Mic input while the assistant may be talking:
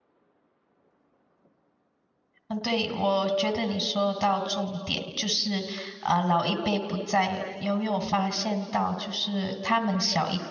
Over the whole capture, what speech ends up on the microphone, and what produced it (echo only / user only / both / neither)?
user only